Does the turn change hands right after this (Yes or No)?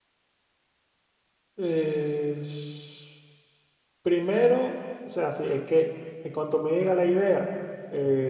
No